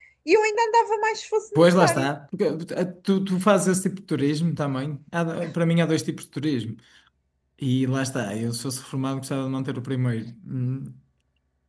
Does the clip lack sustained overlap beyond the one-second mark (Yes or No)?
Yes